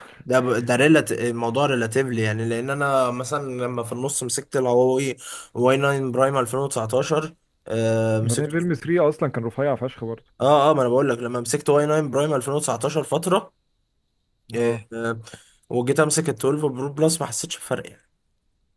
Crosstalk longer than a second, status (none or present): none